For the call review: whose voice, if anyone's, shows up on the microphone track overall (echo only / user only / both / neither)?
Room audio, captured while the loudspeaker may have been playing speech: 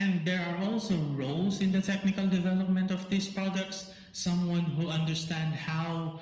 echo only